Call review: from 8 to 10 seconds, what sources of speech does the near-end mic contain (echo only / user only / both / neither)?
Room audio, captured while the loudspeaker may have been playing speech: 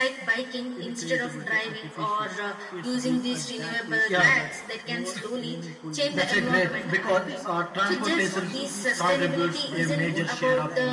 both